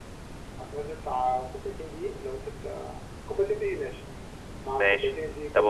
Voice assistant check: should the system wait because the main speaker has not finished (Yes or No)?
No